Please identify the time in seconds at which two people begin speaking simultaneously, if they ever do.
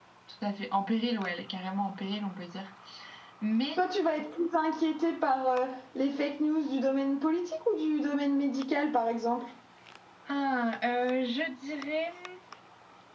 none

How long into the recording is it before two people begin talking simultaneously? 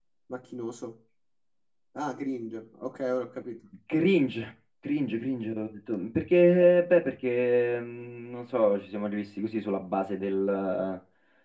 none

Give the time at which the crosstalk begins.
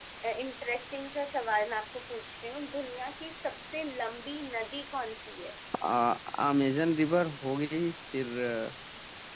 none

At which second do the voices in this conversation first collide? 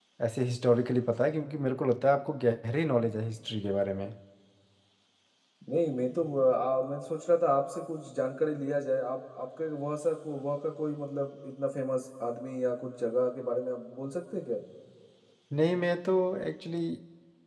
none

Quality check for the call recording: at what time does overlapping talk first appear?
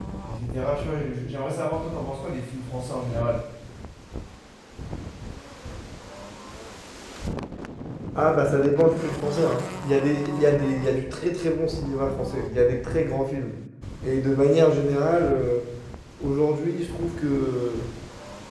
none

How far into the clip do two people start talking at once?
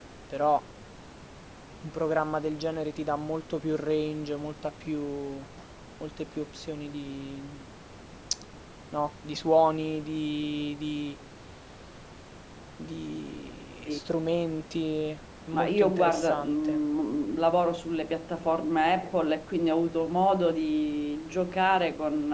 15.5 s

